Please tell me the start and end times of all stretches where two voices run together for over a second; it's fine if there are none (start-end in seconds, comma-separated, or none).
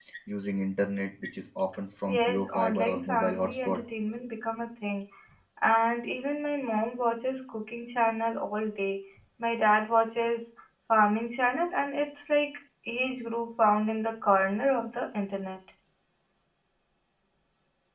2.0-3.8